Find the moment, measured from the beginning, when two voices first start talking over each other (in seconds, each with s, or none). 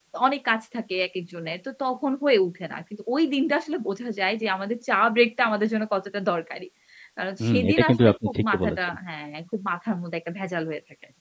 7.4 s